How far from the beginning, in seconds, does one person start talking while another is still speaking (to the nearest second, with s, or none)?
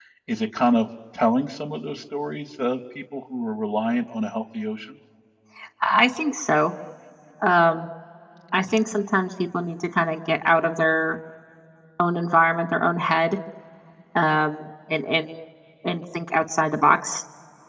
none